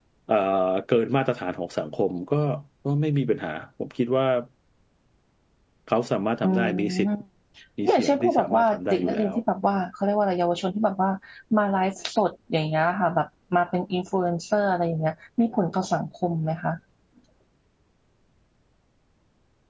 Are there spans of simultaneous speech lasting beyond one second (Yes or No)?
Yes